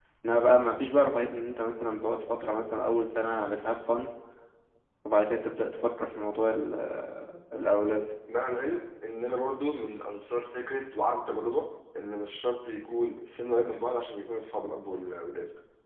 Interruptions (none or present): none